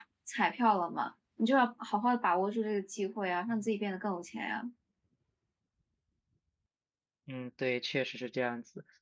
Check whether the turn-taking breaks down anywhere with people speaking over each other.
No

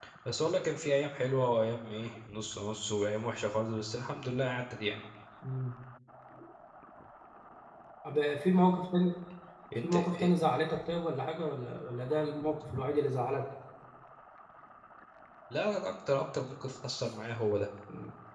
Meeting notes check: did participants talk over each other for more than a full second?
No

